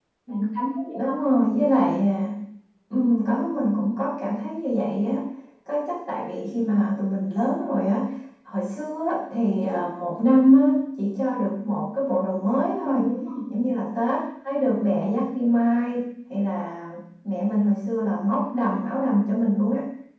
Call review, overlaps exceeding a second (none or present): none